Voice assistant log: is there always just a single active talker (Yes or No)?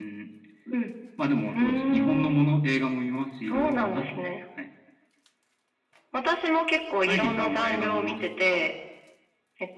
No